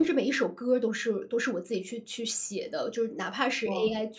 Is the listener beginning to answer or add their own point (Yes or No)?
No